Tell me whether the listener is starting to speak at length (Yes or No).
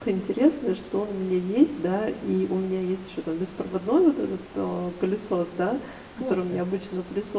No